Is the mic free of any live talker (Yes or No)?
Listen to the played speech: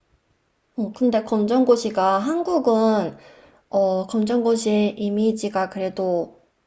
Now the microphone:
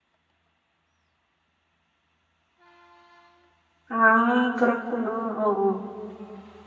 No